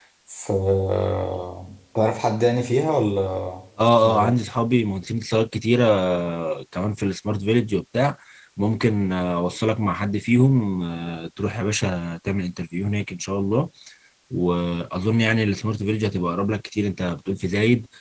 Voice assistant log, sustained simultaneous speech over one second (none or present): none